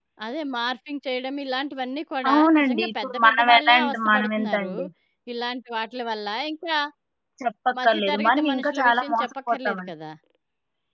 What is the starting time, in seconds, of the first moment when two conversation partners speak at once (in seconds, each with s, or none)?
2.3 s